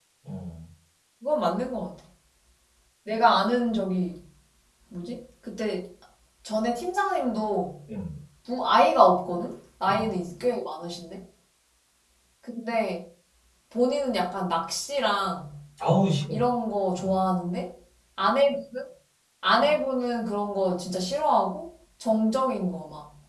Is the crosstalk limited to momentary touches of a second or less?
Yes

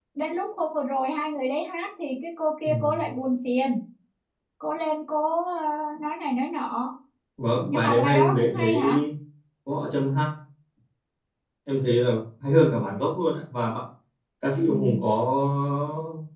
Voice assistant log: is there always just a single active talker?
No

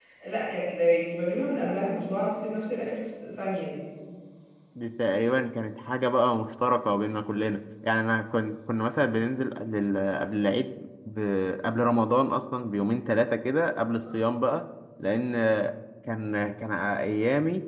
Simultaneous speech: No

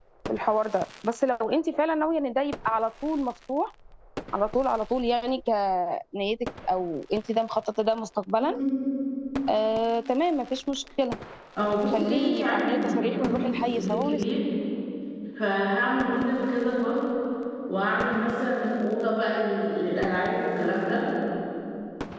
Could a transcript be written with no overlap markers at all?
No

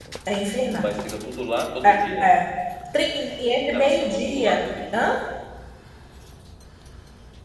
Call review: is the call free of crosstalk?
No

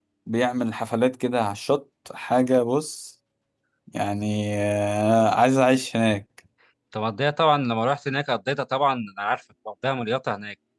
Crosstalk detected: No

